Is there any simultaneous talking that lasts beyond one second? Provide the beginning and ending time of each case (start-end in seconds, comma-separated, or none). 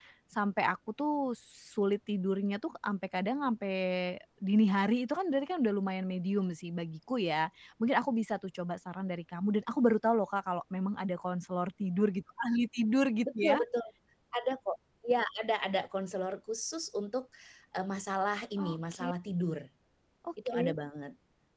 none